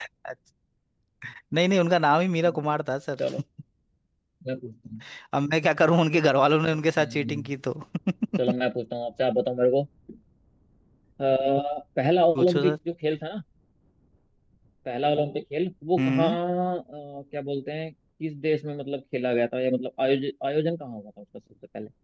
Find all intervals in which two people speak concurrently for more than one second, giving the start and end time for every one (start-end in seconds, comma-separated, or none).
none